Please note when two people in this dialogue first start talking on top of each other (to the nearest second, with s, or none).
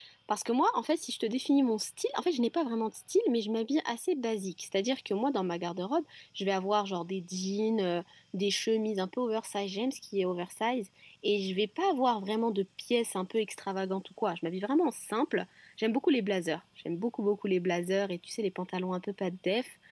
none